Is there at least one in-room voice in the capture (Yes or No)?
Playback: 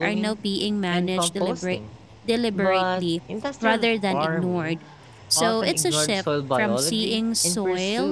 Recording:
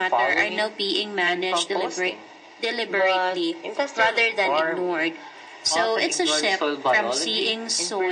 No